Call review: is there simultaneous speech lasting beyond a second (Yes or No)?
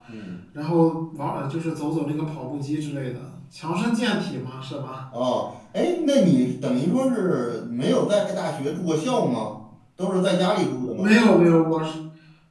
No